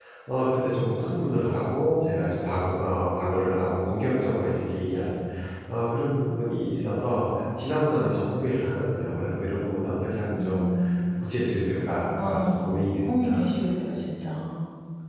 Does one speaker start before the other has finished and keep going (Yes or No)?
Yes